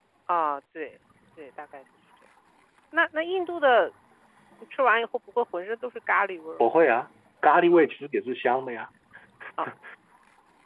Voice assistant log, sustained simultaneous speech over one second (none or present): none